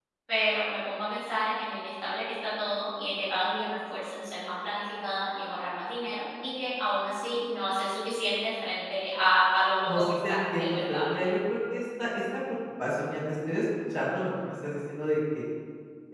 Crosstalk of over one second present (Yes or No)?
Yes